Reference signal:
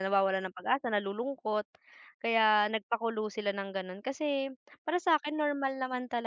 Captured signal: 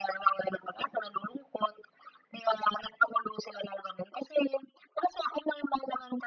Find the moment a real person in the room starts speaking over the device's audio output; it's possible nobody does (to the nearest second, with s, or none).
none